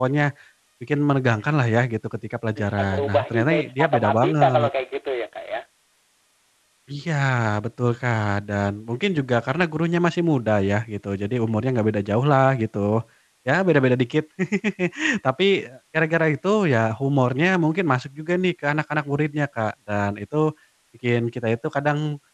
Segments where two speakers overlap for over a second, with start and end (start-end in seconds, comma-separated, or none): 2.6-4.7